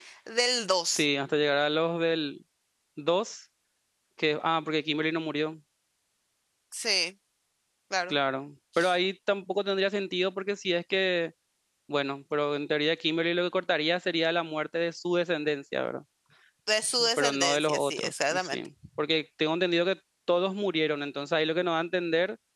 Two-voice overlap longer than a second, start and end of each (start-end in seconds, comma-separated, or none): 17.2-18.6